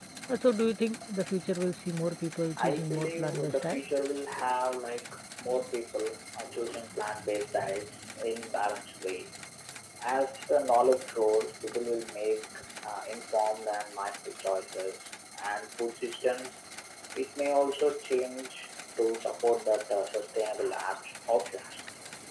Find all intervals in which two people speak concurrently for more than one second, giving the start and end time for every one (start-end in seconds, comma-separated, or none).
2.6-3.8